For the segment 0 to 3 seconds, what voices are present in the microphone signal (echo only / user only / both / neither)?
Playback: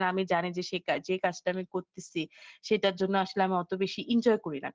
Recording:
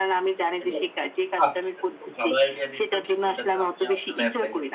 both